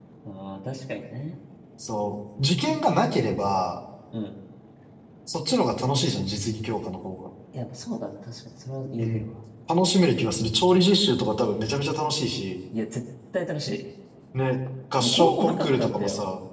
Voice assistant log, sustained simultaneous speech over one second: present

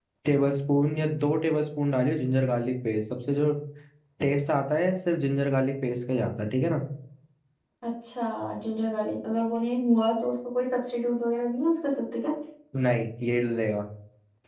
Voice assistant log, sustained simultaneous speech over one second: none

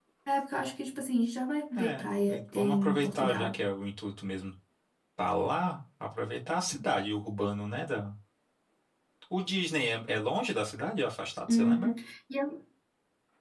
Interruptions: present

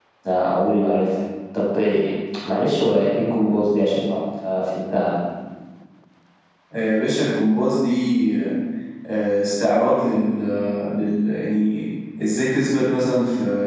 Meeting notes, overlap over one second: none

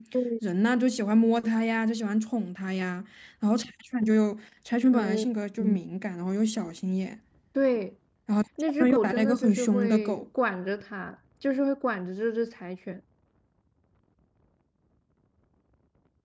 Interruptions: present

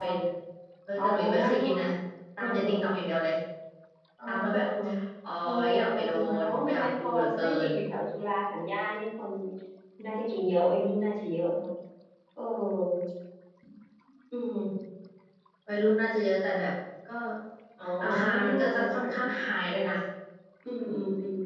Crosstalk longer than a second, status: present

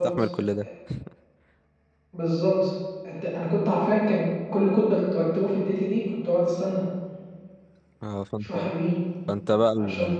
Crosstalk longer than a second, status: none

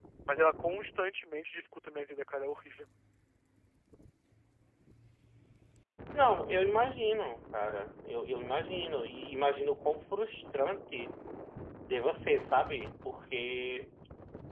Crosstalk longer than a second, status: none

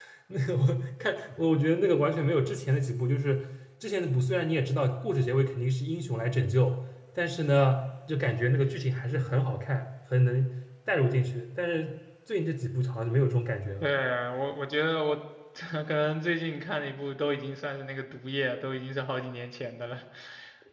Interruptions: none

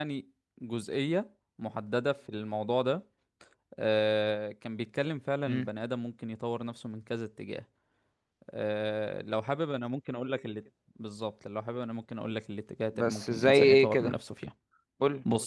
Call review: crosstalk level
present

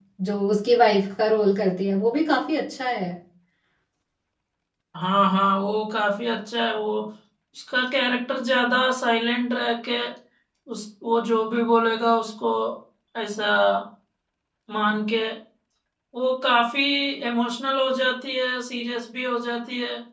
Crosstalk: none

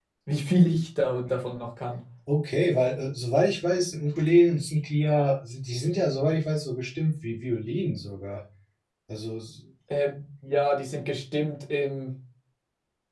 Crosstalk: none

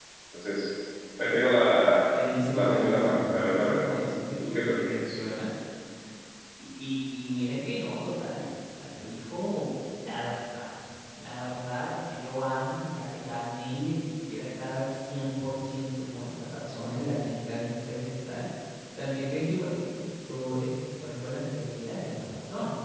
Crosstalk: present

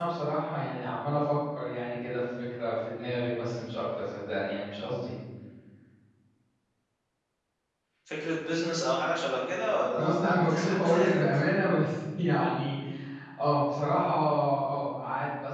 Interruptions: present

